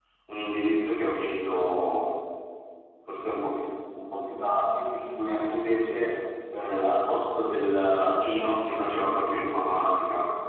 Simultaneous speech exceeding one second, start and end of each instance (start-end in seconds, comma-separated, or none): none